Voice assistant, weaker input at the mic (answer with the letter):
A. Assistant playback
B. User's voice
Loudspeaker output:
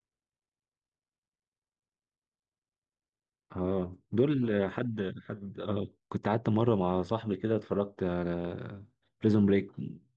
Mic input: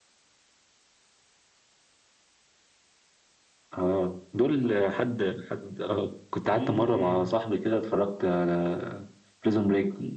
B